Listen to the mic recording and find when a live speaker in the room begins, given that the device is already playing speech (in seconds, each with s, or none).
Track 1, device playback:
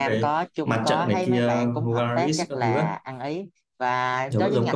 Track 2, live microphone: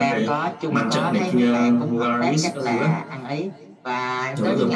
none